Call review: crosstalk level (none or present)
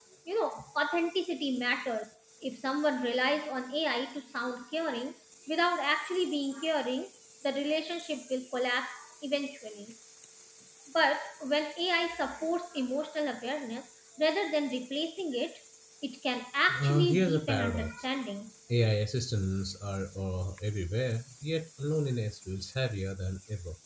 present